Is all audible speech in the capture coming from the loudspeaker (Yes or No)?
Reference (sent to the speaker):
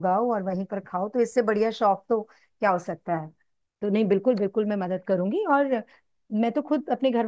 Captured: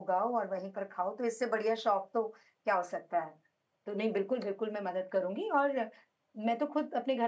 Yes